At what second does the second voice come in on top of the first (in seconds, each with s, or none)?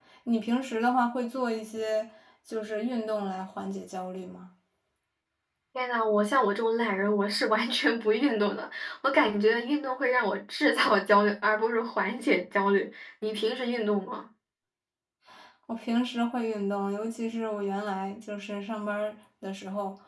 none